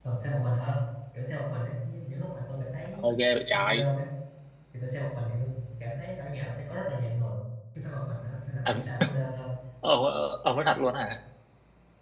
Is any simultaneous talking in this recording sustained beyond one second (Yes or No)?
No